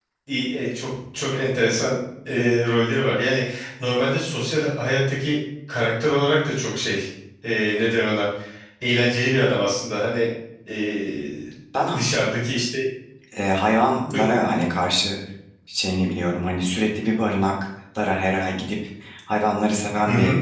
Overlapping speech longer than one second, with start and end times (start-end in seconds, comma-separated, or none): none